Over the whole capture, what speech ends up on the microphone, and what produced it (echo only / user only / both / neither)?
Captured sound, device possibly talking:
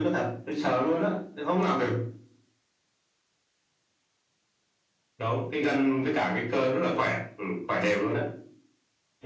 echo only